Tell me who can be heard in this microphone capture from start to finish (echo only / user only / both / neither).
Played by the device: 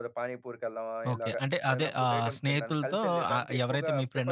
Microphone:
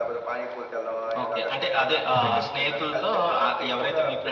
both